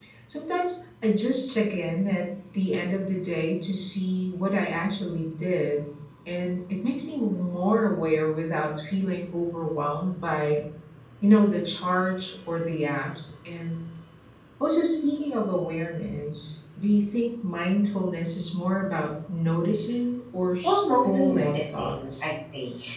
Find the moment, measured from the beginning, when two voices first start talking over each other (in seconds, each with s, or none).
20.6 s